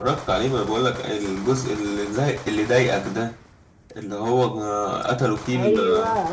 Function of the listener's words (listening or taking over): taking over